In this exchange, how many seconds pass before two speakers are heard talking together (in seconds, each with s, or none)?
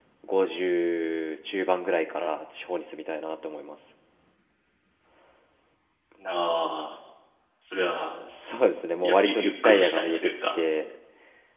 9.0 s